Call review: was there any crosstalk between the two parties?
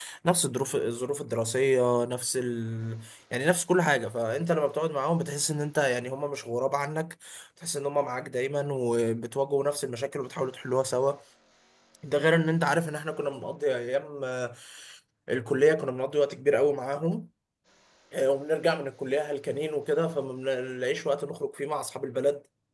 No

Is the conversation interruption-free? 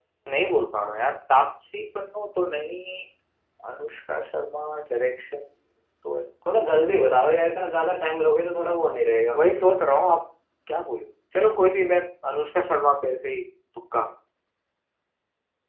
Yes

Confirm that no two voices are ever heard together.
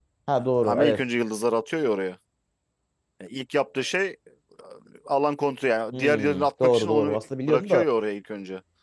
No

